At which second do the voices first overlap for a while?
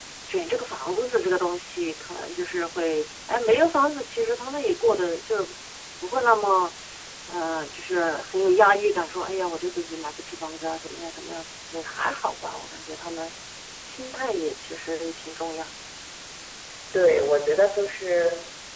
none

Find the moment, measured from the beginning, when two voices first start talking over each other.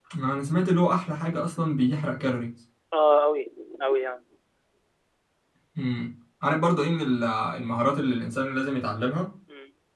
none

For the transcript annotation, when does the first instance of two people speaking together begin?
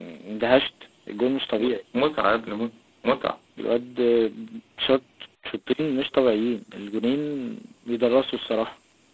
none

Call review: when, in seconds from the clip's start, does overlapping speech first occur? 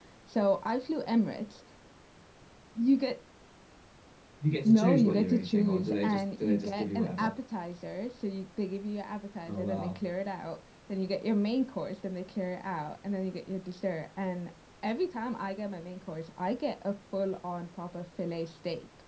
5 s

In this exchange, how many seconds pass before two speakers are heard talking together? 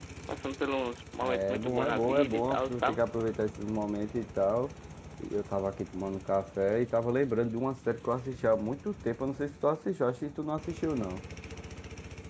1 s

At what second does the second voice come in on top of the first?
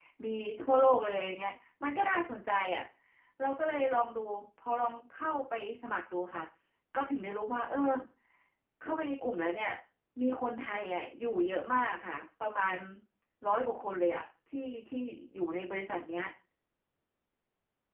none

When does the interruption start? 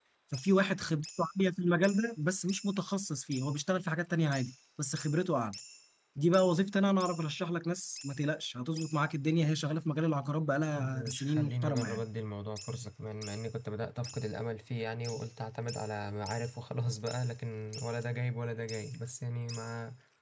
11 s

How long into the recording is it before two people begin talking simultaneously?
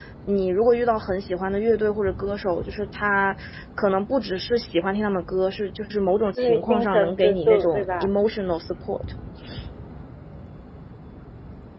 6 s

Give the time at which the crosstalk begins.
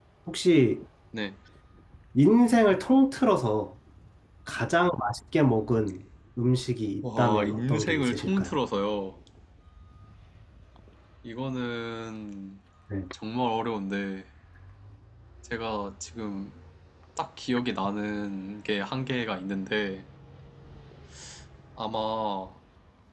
7 s

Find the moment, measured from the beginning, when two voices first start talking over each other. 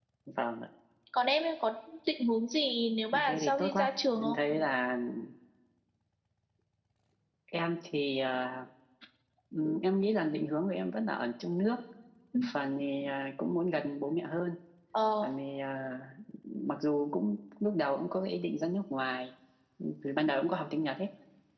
3 s

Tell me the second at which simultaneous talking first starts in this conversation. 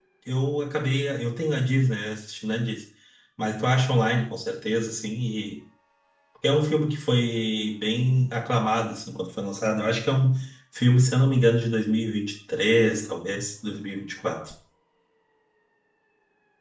none

